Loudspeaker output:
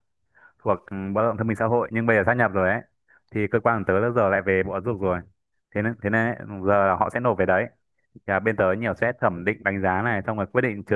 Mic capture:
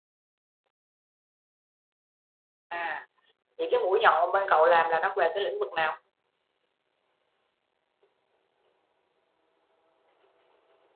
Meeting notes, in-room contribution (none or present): present